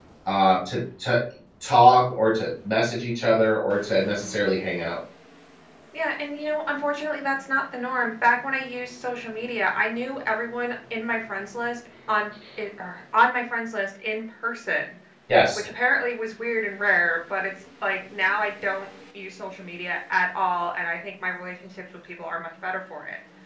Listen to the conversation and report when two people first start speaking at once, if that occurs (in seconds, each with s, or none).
none